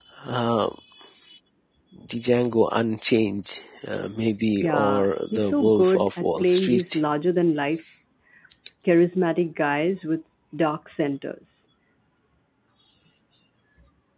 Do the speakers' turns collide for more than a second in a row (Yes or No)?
Yes